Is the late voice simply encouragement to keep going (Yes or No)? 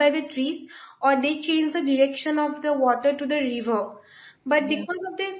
Yes